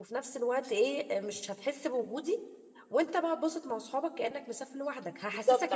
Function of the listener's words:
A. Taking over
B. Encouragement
A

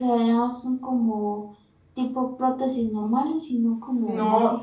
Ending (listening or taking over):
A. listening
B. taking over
B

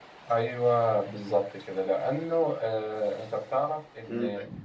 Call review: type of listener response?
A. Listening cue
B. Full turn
A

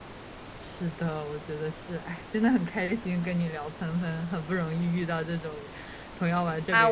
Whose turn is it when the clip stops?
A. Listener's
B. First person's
A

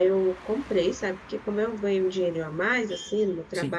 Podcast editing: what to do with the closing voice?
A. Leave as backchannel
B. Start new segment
A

